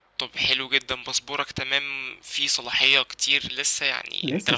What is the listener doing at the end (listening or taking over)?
listening